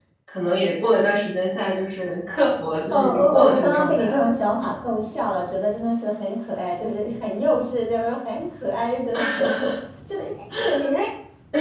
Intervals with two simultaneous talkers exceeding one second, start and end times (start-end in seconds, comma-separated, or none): 2.9-4.2